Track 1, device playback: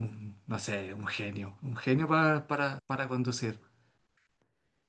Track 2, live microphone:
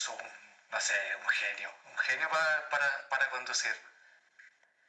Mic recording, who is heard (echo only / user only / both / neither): echo only